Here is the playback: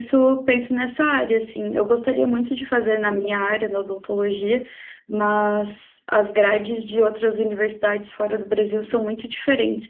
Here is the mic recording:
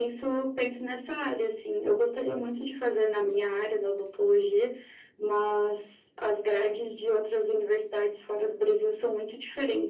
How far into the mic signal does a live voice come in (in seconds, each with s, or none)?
none